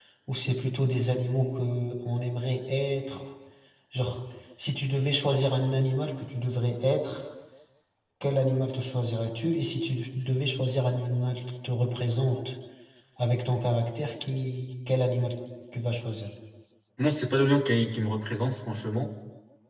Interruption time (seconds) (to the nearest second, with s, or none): none